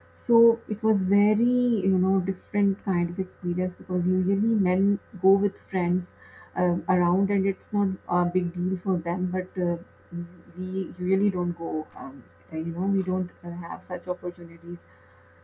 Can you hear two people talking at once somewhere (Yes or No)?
No